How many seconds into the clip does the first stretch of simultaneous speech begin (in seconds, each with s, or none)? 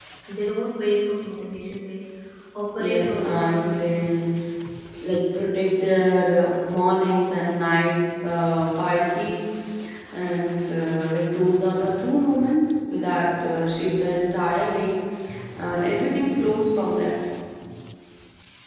2.8 s